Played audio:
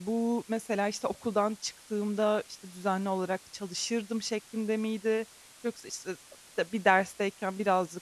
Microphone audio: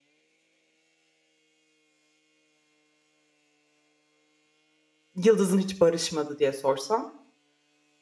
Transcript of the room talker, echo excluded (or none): yıldızın hiç barışmadı diye sorsam?